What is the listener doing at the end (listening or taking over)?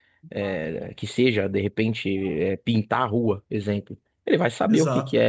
listening